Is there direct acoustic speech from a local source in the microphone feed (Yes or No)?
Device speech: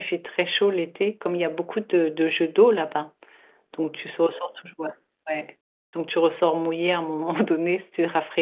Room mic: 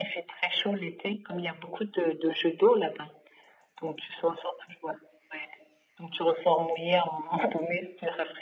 No